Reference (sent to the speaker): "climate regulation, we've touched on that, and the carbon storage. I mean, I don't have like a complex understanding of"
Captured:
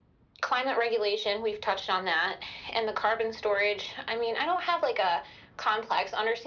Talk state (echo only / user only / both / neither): echo only